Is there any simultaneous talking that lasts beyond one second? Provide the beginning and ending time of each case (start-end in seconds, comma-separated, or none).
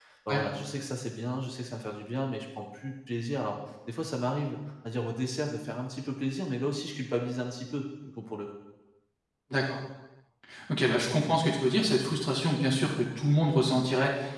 none